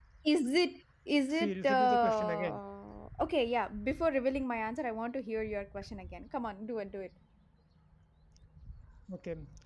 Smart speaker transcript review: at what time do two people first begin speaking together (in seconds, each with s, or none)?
1.3 s